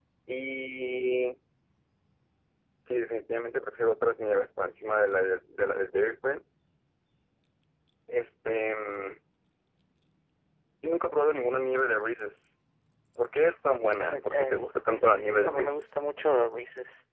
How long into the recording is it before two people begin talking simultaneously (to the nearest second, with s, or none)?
14 s